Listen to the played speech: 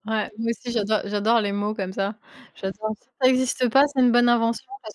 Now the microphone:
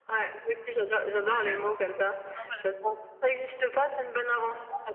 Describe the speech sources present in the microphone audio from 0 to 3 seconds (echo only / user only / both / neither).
both